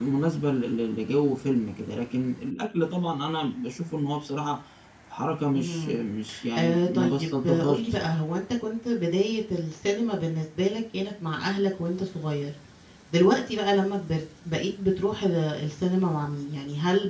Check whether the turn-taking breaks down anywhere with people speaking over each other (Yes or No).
Yes